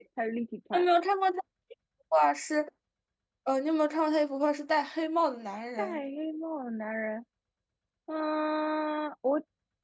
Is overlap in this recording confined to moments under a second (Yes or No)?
Yes